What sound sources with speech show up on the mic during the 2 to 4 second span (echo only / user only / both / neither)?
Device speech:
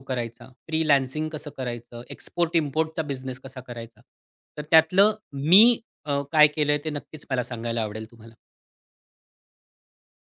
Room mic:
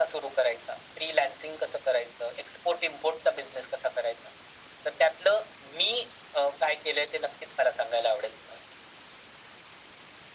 echo only